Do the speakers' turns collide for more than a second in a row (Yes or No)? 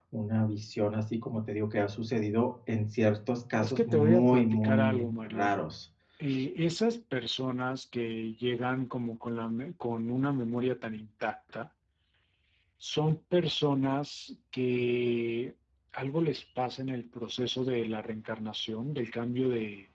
Yes